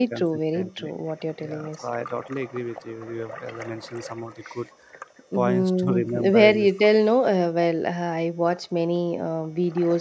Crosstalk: present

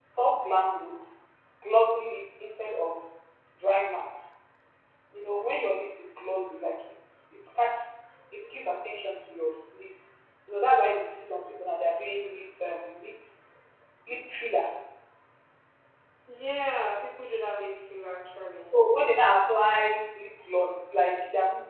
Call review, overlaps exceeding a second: none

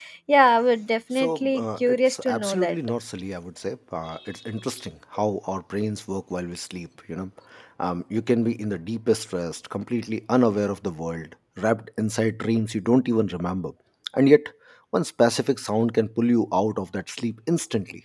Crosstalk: present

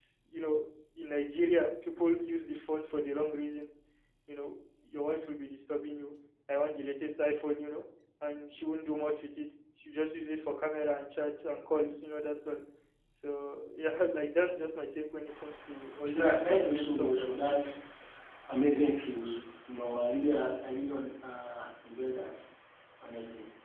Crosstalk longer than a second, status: present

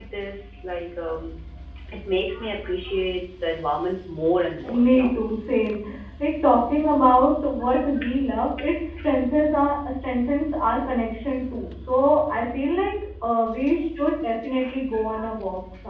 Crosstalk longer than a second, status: none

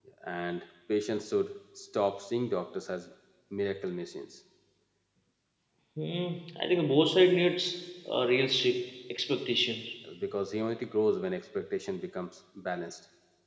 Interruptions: none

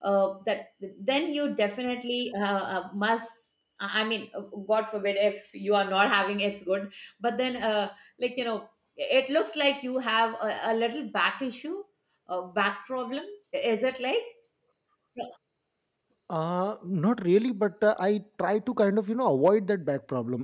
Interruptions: none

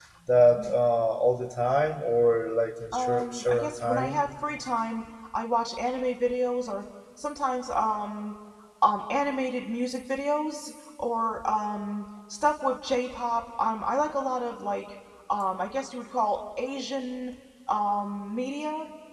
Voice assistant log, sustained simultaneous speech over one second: present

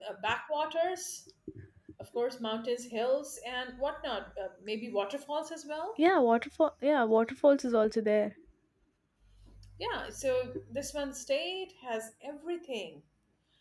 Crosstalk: none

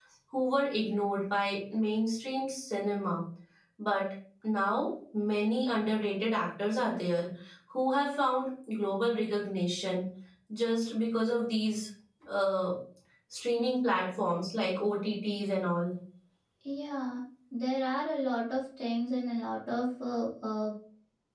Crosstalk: none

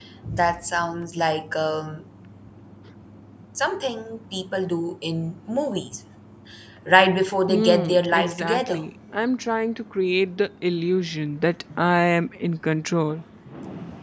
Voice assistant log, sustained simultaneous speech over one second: present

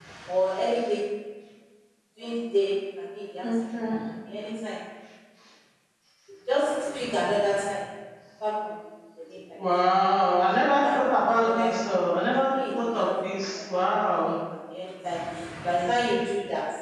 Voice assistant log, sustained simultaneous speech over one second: present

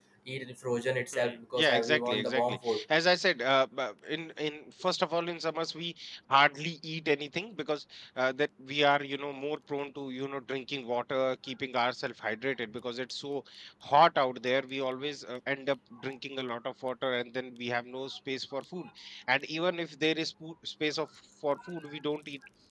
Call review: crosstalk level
present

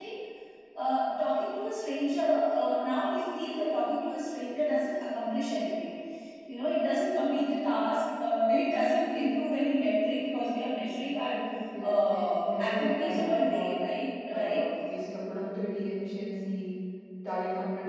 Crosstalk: present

